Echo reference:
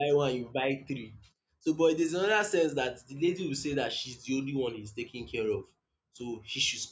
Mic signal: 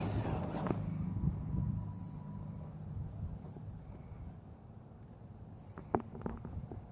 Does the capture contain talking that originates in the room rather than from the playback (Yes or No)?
No